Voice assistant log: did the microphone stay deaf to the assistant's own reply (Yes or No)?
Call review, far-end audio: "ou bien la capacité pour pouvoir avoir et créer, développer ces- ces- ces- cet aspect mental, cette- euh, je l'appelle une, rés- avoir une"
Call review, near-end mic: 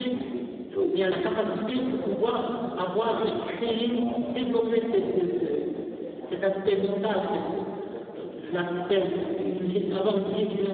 No